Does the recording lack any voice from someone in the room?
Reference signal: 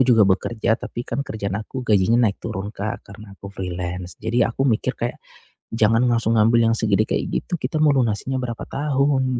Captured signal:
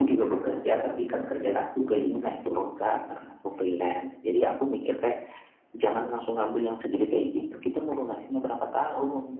Yes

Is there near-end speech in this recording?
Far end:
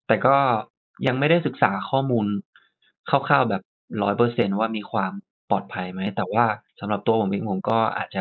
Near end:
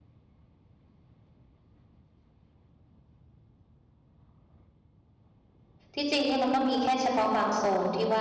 Yes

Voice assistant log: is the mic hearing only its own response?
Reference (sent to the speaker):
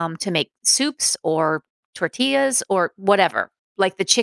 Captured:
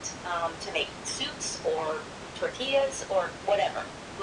Yes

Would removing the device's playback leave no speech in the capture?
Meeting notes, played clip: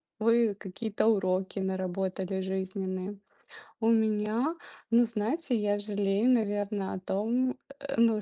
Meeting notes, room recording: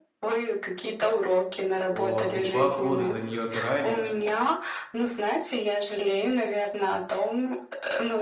No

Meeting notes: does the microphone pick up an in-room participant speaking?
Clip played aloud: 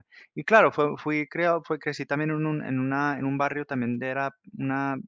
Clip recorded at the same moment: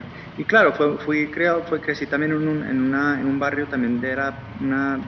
No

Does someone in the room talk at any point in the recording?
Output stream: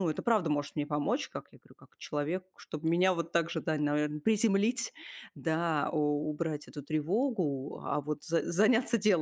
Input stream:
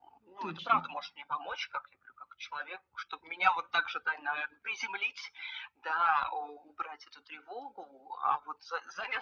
Yes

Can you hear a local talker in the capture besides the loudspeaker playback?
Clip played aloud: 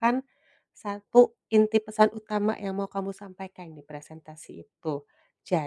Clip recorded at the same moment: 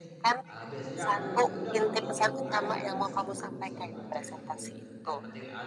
Yes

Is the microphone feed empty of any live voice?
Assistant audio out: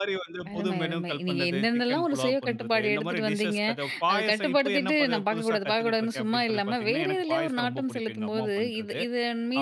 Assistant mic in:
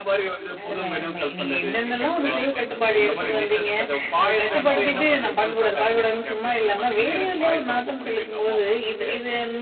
No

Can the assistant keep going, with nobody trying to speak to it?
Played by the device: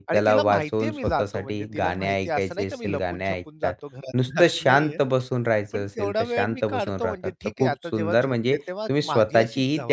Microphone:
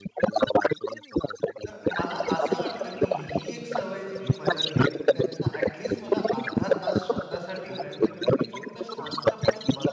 No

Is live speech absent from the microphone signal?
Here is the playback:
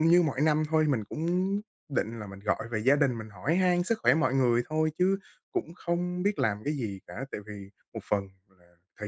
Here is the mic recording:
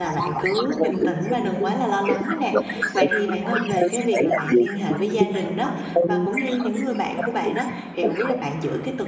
No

